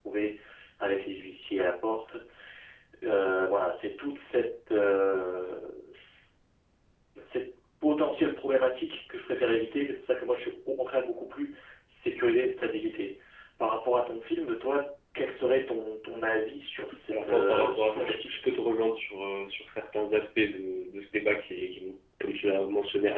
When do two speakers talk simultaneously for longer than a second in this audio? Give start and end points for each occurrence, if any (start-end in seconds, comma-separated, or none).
17.1-18.4